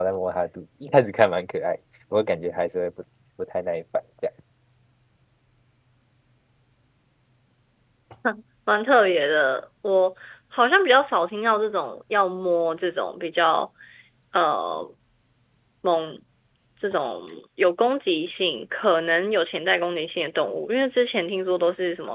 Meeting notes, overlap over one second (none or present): none